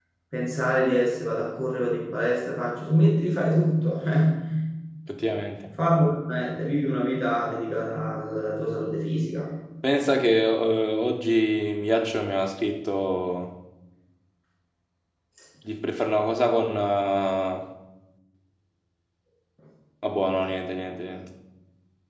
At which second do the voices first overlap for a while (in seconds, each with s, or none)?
none